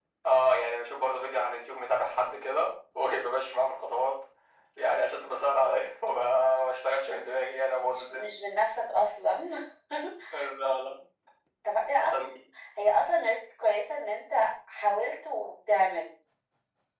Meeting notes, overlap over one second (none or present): none